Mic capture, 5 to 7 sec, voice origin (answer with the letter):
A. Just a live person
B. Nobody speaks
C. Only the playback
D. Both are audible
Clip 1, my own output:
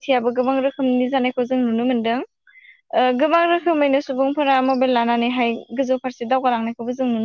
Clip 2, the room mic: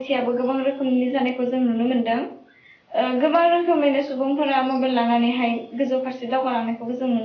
C